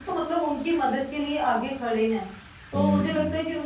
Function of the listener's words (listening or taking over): listening